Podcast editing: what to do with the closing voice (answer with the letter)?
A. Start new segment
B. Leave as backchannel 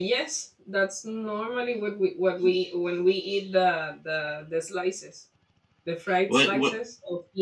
B